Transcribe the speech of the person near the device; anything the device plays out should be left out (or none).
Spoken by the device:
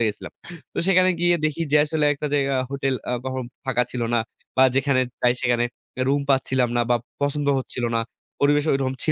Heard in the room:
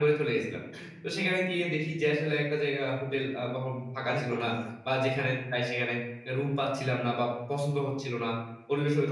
অনেক কঠিন অনেক কঠিন।